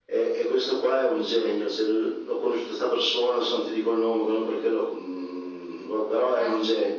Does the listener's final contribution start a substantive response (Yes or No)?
No